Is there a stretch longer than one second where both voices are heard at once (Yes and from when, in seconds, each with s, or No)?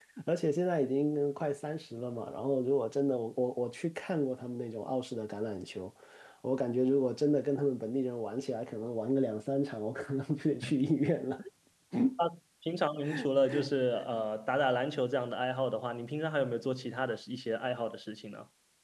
No